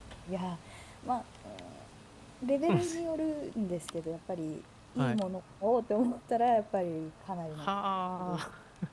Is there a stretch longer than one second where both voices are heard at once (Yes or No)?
No